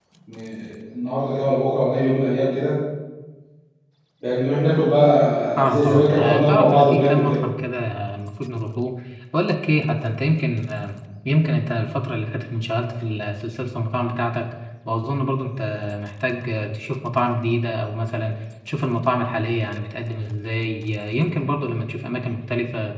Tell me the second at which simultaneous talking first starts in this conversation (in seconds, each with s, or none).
5.6 s